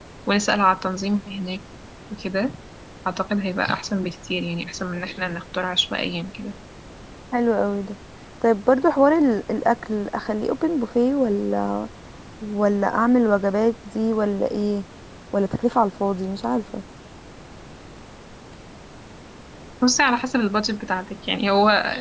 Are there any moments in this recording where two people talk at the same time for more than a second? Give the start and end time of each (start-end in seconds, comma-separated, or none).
none